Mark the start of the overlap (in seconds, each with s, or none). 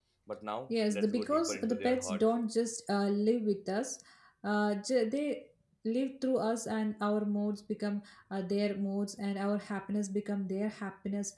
0.7 s